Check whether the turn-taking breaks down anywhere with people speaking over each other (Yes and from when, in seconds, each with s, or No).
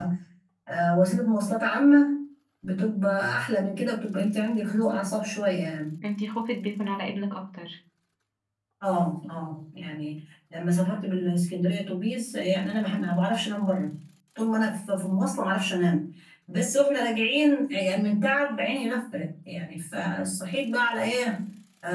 No